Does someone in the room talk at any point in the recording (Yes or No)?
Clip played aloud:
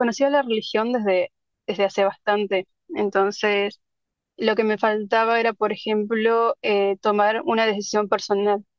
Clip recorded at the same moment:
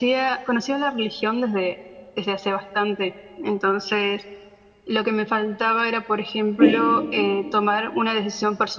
Yes